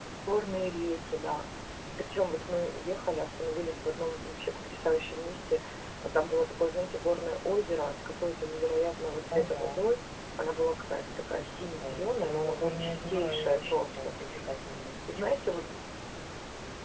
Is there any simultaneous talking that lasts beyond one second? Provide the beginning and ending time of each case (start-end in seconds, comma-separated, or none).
11.8-14.1